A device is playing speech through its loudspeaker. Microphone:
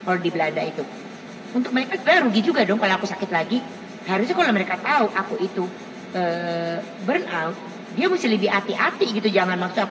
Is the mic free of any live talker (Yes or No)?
Yes